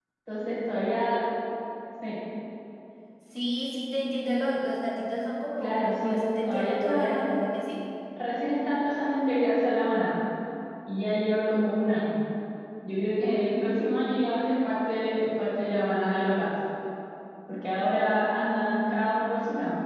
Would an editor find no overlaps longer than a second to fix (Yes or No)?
No